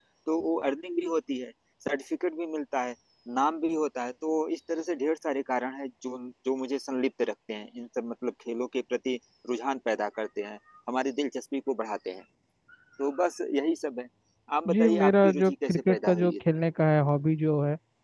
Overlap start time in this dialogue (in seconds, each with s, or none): 14.7 s